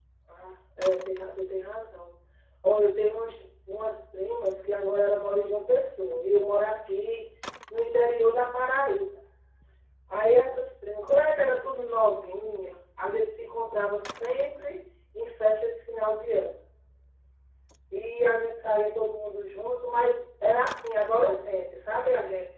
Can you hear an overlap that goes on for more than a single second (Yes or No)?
No